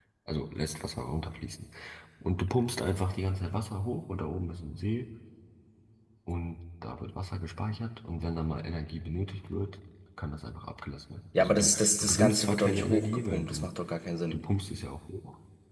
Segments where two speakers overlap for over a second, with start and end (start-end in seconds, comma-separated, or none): 11.4-13.7